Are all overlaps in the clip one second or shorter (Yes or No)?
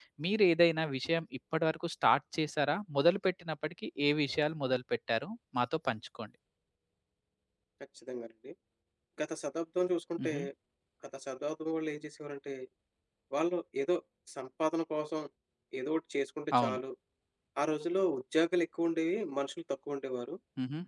Yes